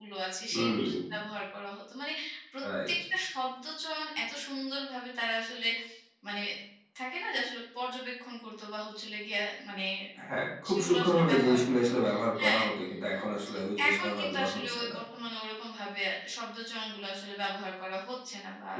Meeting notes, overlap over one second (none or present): present